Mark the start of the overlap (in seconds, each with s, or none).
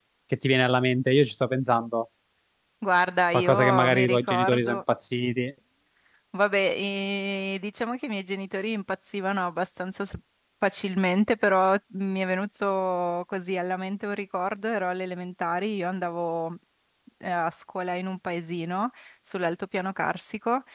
3.3 s